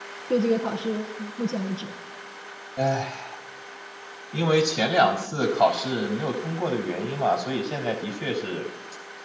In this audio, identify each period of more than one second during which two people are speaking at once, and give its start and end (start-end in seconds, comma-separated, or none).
none